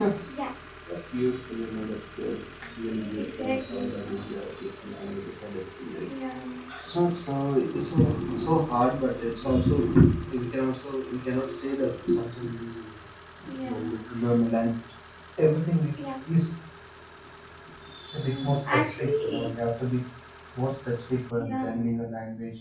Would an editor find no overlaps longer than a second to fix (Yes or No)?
No